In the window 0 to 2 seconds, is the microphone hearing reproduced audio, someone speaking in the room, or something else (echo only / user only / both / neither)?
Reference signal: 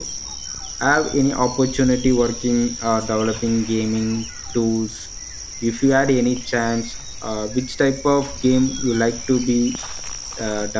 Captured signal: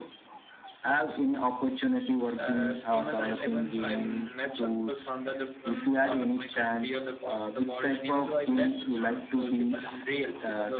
echo only